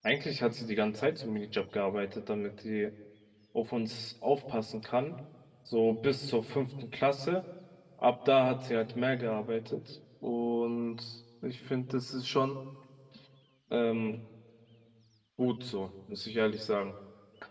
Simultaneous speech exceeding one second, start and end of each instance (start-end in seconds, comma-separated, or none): none